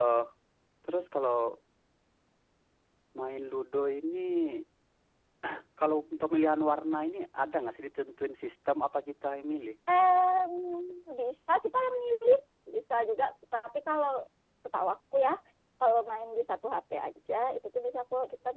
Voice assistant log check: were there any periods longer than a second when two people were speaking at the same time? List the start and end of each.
none

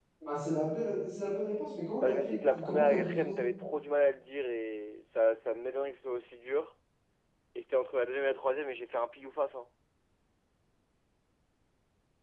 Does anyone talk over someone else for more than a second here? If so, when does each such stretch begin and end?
2.0-3.4

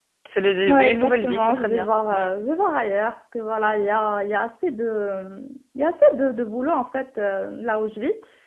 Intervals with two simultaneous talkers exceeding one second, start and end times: 0.7-1.9

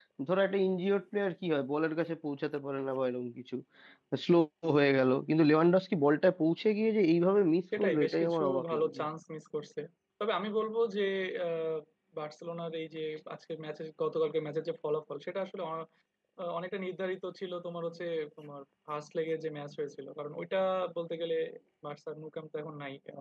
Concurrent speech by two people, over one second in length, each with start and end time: 7.8-9.0

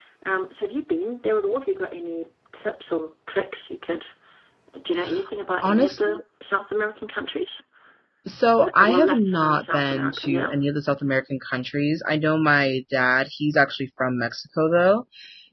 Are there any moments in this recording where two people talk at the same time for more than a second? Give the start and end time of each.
8.6-10.6

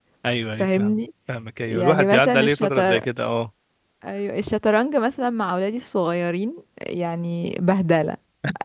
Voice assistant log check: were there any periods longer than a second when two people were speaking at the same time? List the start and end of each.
1.7-3.0

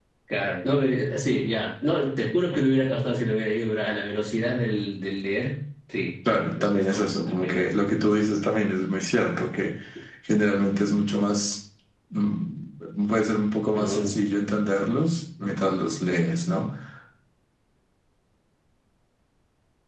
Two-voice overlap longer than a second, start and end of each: 6.3-7.7

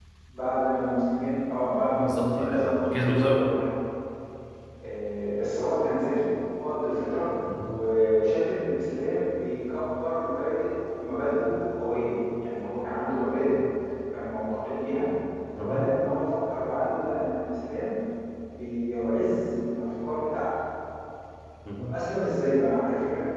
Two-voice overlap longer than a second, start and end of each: 1.9-3.5

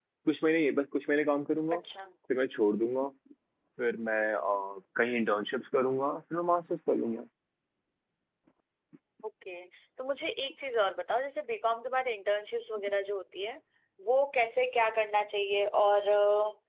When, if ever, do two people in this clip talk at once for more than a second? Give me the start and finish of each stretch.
none

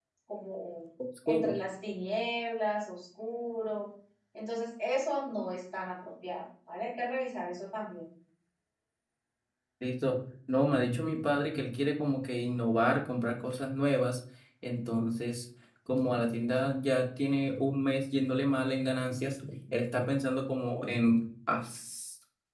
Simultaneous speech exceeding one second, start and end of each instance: none

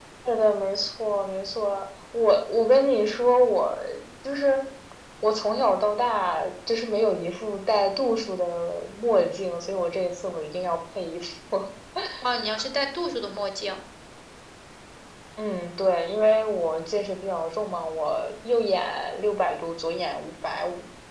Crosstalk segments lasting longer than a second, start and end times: none

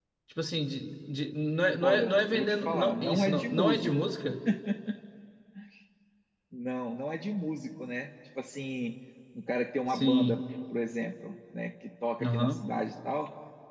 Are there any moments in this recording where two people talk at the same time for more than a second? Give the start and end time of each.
1.8-3.9

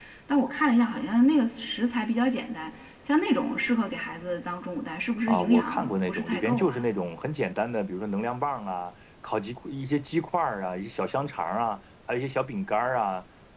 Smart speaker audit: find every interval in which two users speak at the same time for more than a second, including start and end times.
5.3-6.9

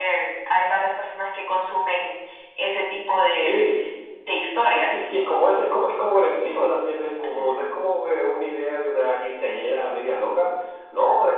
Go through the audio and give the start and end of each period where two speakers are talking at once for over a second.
none

